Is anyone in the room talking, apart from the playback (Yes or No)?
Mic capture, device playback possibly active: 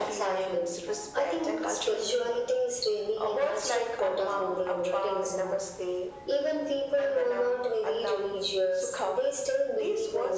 No